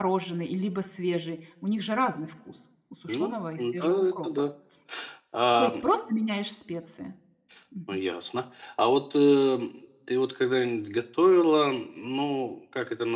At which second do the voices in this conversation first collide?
3 s

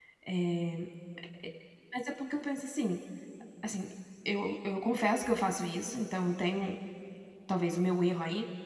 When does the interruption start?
none

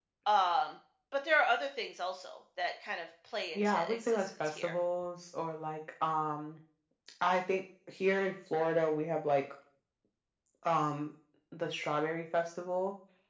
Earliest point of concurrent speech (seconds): 4 s

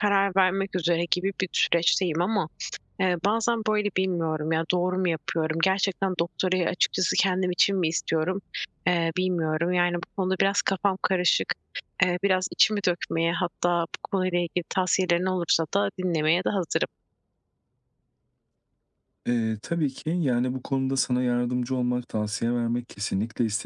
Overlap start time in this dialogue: none

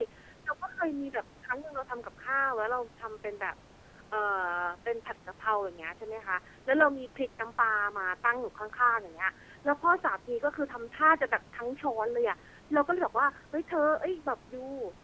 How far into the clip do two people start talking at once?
none

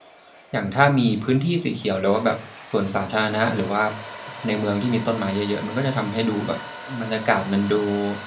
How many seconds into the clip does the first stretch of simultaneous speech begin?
none

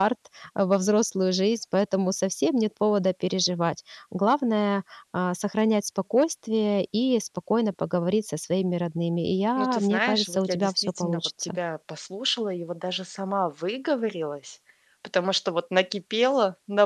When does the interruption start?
10 s

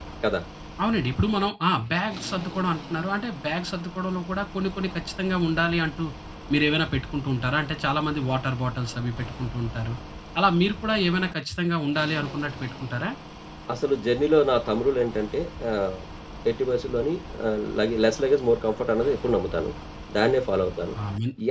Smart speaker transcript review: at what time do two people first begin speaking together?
none

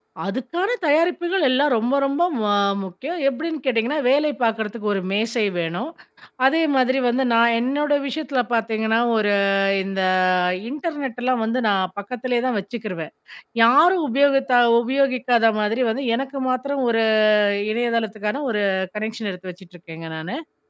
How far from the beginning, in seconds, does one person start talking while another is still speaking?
none

